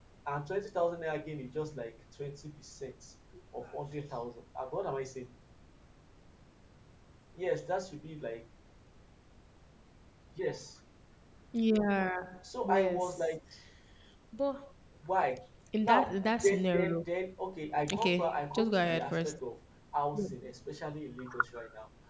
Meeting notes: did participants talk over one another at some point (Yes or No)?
Yes